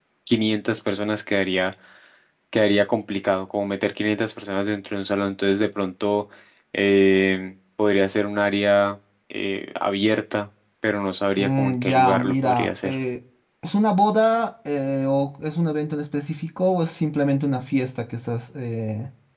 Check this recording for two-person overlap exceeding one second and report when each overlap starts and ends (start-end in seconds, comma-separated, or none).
11.4-13.0